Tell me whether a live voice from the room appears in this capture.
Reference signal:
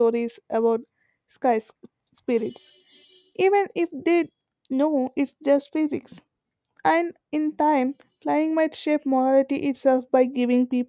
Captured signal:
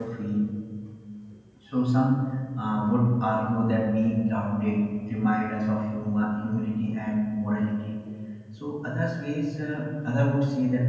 Yes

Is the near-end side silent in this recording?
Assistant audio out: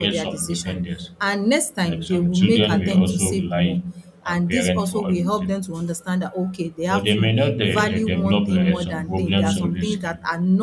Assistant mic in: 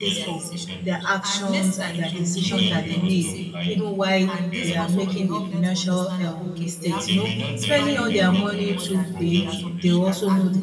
No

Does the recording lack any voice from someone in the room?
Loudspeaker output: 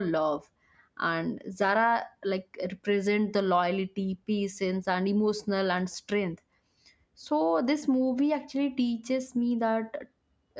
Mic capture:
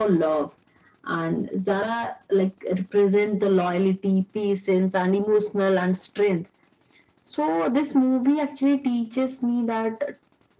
Yes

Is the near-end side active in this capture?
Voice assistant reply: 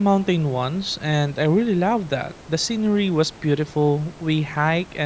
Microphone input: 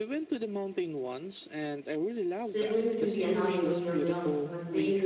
Yes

